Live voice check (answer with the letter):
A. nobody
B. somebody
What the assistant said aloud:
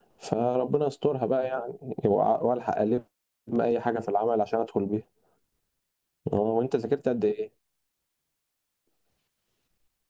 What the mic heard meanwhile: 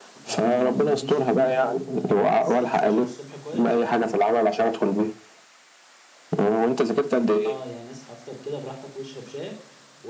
B